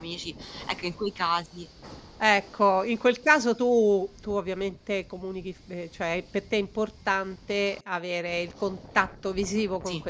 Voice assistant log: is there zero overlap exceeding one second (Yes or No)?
Yes